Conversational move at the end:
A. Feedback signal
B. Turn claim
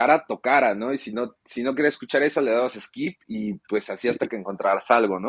A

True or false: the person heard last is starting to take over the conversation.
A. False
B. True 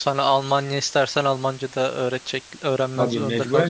B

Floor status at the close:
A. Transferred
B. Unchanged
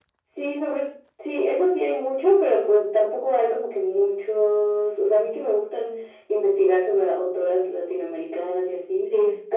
B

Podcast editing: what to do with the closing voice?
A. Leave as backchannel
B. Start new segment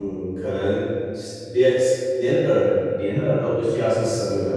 A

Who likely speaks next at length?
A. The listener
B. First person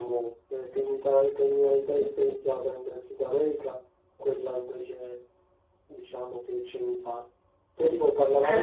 A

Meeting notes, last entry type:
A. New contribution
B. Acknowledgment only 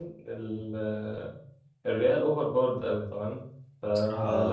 B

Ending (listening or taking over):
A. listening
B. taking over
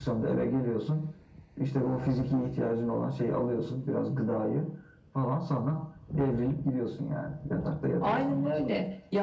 B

